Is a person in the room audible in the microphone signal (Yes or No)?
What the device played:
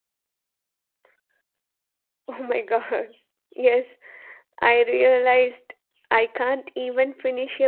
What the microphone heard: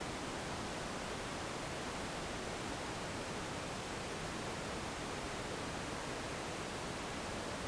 No